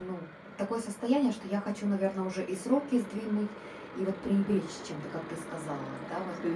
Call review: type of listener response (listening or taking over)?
listening